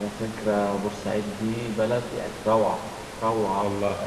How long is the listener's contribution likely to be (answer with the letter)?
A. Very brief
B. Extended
A